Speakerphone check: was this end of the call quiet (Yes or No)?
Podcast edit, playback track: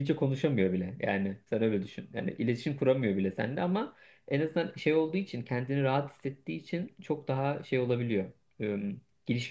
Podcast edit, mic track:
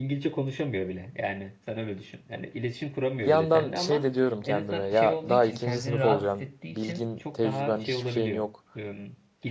No